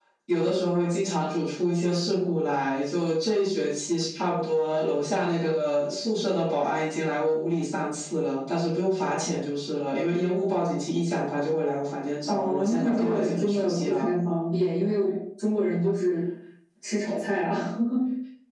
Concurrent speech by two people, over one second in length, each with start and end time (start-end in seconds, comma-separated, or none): 12.2-14.1